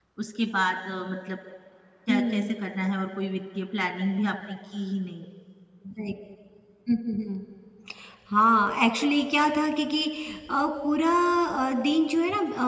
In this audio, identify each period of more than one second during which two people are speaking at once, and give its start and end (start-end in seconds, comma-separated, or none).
none